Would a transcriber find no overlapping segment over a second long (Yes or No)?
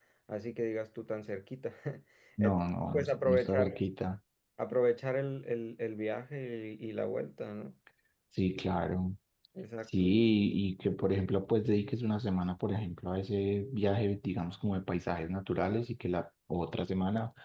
No